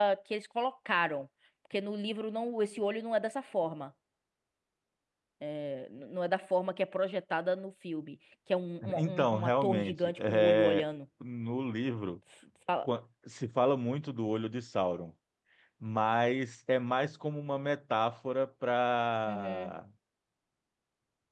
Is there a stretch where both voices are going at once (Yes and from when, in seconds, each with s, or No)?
Yes, from 9.0 s